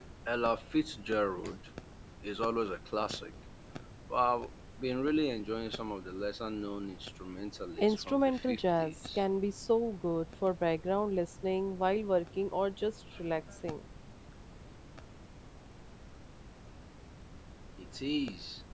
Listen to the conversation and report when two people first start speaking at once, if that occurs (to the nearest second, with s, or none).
8 s